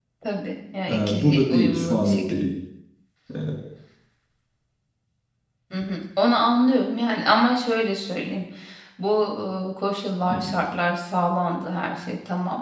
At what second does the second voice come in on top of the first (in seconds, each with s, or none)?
0.9 s